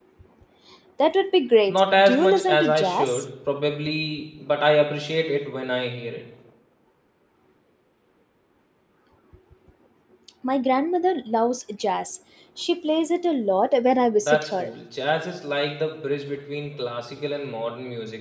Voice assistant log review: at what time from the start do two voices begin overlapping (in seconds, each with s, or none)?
1.8 s